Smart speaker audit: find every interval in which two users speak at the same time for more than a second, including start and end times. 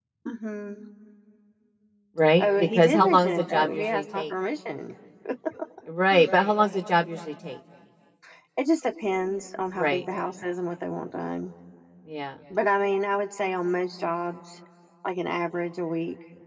2.4-4.2

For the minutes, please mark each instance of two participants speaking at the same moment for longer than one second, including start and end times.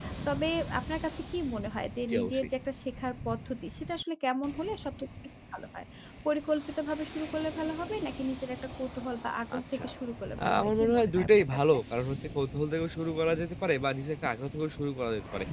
10.4-11.8

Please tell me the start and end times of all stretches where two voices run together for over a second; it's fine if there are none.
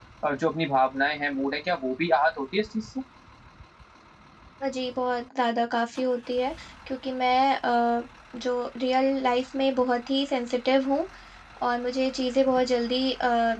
none

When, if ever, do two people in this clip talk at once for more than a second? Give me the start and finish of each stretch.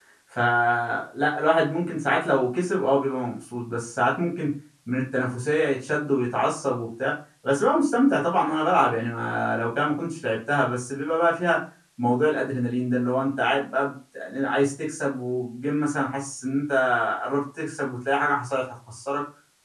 none

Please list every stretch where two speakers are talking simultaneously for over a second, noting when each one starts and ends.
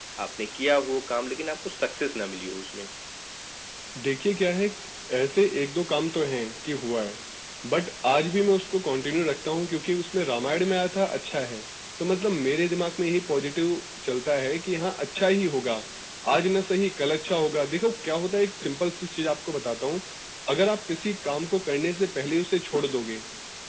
none

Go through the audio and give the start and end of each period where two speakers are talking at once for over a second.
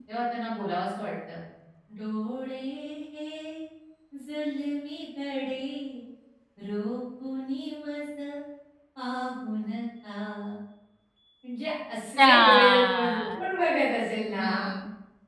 12.2-13.4

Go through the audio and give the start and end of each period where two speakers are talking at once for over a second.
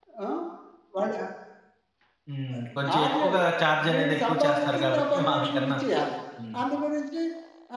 3.9-5.8

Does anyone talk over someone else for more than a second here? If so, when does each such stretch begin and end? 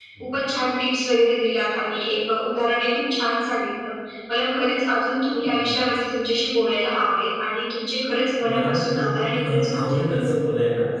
8.5-10.2

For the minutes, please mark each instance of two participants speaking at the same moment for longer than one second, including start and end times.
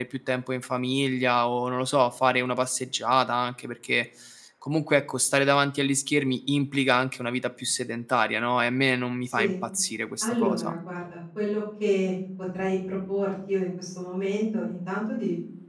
none

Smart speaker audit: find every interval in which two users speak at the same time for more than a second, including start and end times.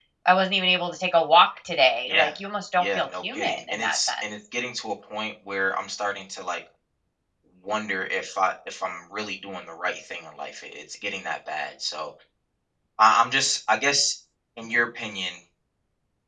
2.8-4.2

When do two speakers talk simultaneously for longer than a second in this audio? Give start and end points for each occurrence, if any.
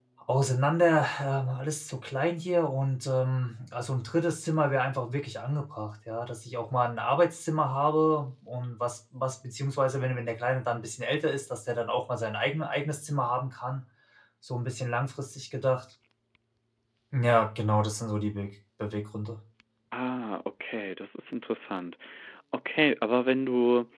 none

